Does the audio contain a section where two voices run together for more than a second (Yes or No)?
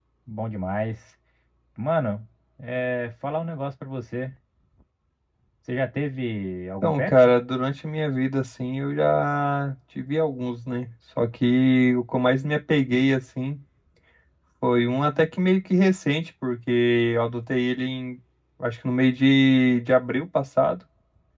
No